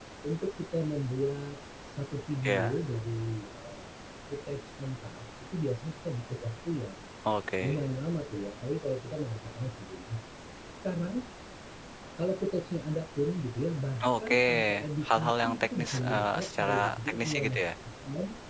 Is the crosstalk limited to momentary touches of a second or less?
No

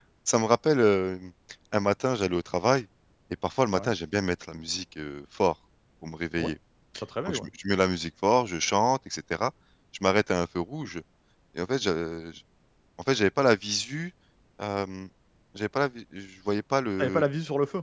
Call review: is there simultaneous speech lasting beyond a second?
No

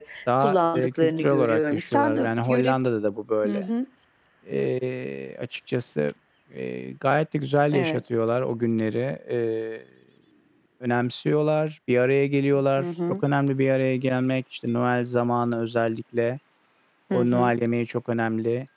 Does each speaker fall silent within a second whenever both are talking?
No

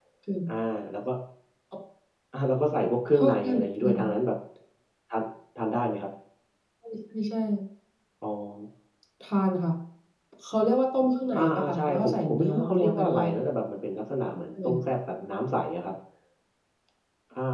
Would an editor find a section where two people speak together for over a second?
Yes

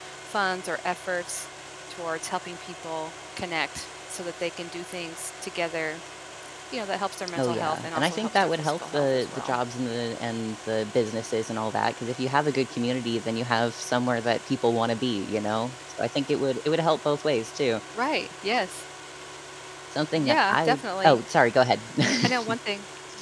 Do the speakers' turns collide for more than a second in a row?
Yes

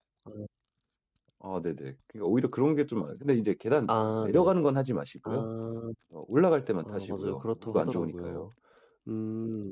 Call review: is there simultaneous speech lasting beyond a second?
Yes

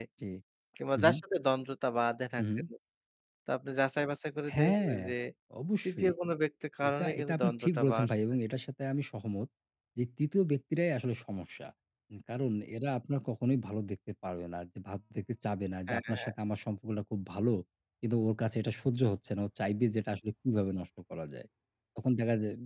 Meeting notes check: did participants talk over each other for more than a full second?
Yes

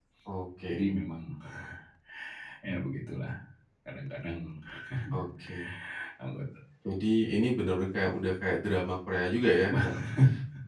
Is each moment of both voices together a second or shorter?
Yes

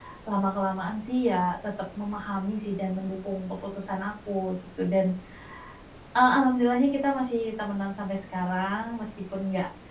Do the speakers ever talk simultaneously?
No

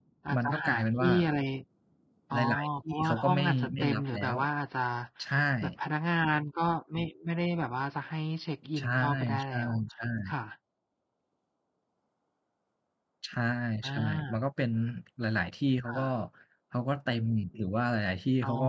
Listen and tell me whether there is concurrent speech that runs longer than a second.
Yes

